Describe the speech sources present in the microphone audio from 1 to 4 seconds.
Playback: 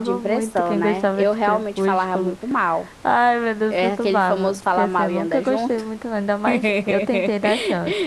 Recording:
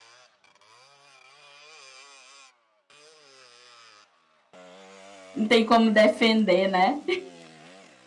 neither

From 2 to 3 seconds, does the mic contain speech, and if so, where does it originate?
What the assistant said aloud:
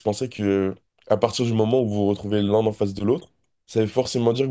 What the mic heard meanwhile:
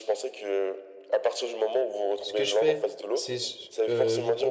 both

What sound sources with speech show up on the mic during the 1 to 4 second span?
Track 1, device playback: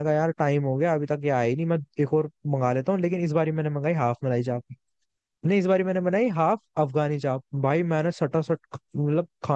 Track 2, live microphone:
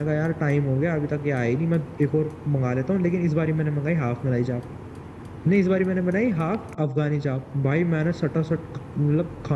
echo only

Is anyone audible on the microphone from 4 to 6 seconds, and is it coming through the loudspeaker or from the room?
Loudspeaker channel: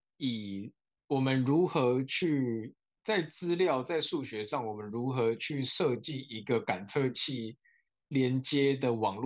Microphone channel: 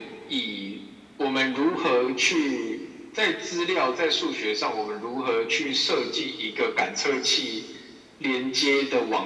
echo only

